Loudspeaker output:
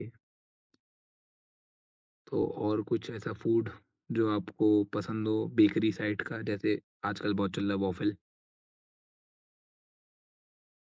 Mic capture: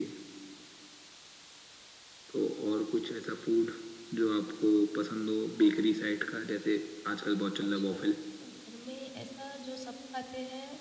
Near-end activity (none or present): present